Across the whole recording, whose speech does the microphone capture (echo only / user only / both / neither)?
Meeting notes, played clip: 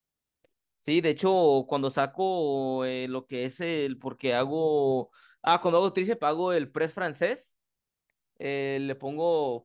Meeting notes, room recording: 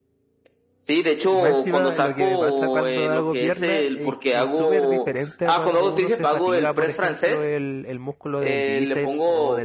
both